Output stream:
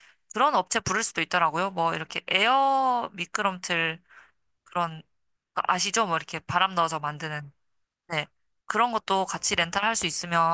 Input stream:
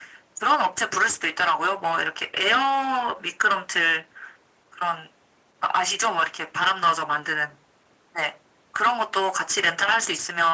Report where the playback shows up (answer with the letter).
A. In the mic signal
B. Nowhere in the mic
A